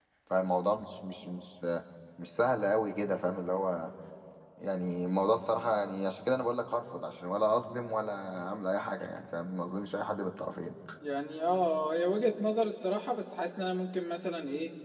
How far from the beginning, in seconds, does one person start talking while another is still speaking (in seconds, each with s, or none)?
none